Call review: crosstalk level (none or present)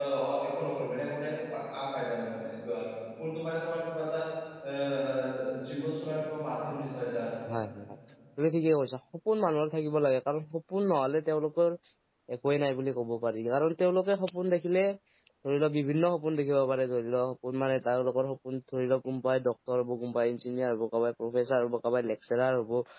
none